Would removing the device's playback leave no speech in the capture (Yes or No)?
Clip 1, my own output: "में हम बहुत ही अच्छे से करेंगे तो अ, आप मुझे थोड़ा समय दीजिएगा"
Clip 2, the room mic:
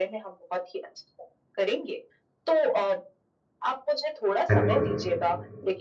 No